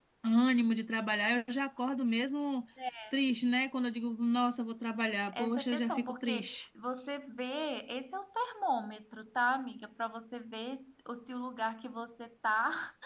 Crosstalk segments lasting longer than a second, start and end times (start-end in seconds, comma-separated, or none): 5.4-6.6